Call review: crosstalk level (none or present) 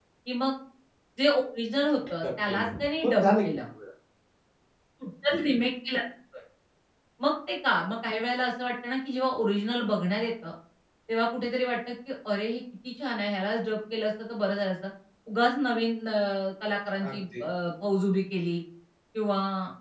present